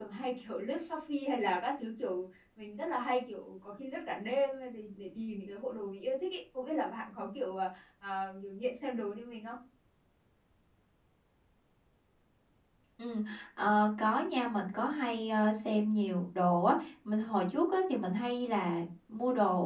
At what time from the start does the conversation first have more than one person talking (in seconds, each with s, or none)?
none